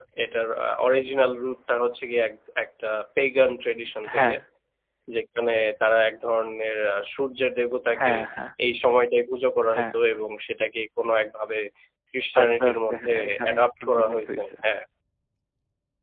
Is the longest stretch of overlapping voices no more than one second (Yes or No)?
No